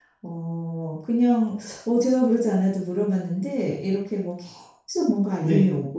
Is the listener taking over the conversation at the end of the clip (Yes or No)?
No